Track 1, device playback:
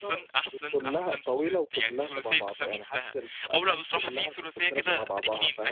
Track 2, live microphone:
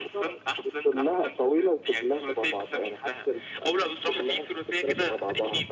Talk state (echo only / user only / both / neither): echo only